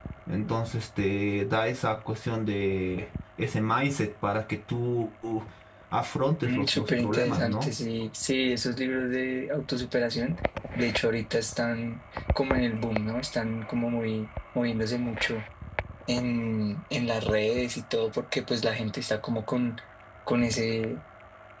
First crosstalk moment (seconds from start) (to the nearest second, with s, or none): 6 s